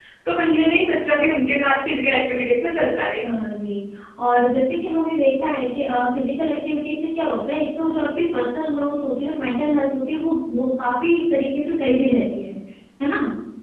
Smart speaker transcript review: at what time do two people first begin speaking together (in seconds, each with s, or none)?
none